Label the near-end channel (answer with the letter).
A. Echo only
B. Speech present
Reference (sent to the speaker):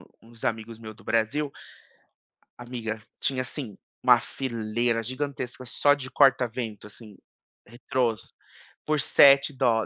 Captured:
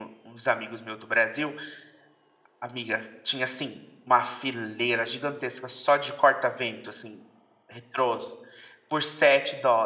A